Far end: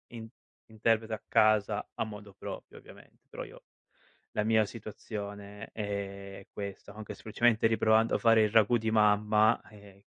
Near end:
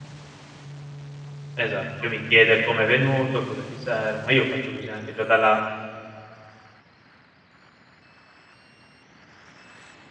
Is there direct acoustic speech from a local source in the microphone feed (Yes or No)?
Yes